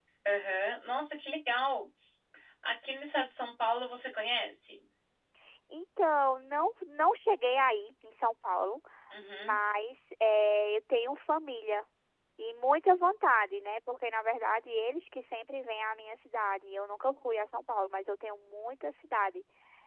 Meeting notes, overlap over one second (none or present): none